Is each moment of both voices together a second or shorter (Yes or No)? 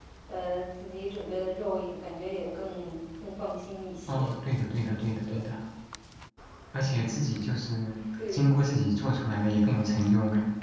Yes